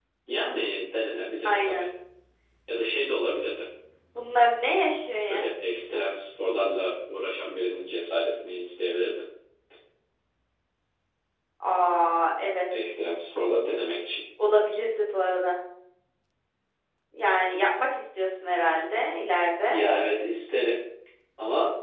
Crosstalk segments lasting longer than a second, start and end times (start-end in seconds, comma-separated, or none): none